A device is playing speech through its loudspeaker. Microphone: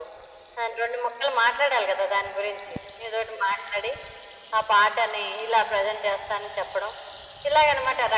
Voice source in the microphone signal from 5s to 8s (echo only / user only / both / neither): echo only